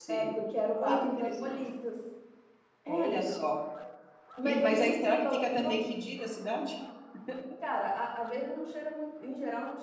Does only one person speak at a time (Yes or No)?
No